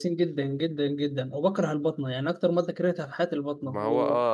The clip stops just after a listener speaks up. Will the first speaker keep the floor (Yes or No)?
No